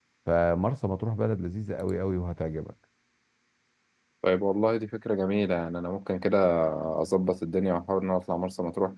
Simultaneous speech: No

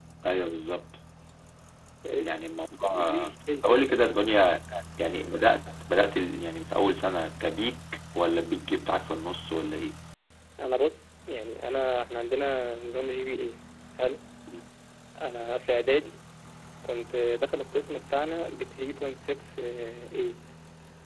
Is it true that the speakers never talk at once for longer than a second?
No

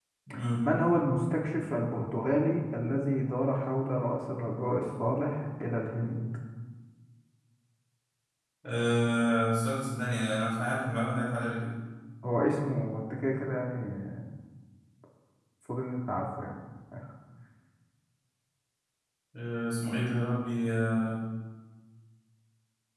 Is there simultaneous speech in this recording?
No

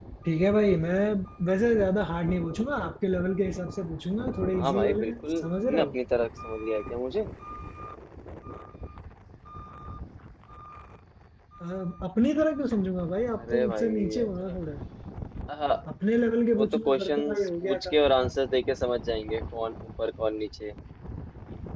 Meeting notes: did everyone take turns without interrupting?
No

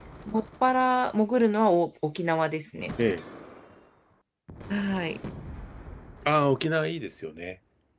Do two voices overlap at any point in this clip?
No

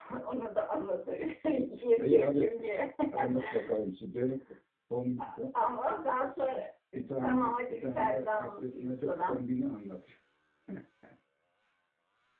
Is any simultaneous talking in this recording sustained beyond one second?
Yes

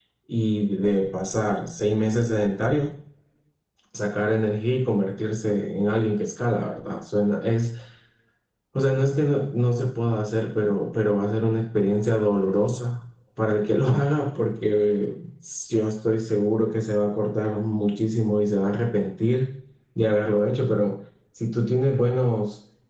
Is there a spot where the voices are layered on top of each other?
No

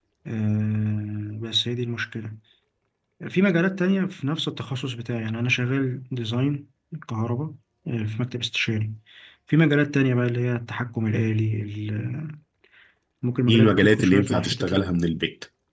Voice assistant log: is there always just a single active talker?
No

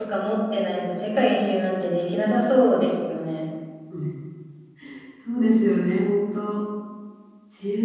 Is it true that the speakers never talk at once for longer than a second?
Yes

